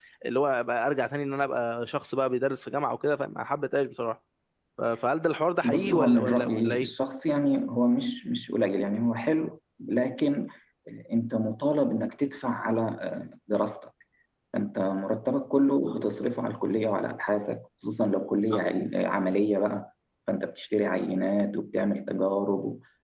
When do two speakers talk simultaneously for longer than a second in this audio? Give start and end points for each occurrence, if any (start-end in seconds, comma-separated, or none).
5.6-6.9